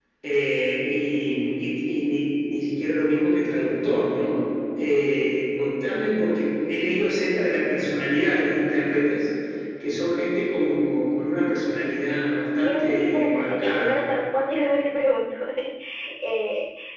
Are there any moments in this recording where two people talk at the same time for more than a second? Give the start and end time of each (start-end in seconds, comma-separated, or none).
12.6-14.0